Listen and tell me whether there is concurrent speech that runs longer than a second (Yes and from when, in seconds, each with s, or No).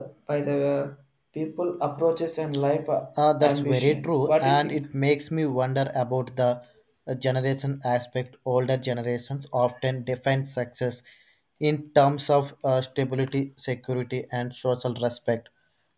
Yes, from 3.4 s